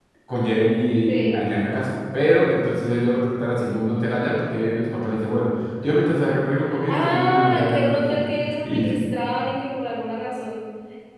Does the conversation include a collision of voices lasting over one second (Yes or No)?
Yes